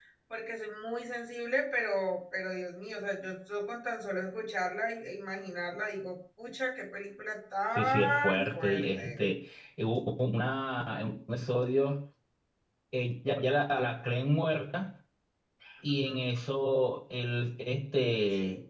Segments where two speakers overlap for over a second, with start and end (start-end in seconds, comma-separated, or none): 7.8-9.3